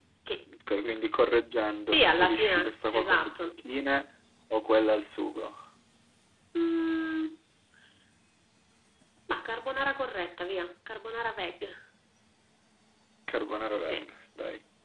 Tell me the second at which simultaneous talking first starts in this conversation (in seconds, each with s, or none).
1.8 s